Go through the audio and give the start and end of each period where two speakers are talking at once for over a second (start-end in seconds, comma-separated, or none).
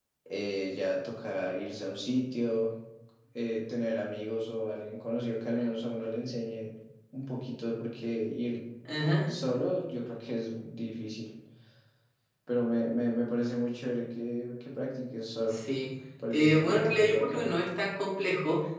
16.3-17.6